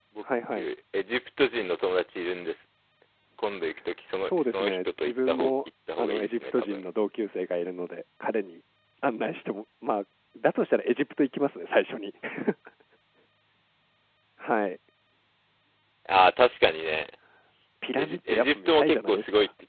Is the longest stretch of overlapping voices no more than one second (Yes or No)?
No